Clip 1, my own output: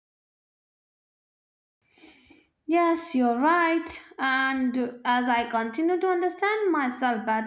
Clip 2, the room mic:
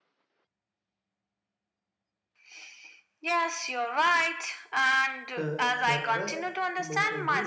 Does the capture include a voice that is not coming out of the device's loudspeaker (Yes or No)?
Yes